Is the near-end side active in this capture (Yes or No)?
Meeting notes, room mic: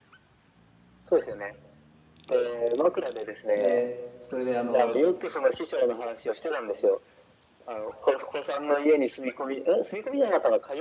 Yes